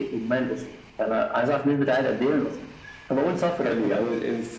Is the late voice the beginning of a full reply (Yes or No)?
Yes